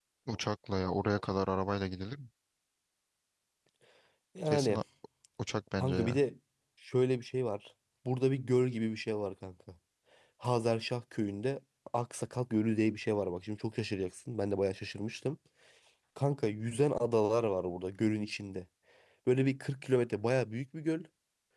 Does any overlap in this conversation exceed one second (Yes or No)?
No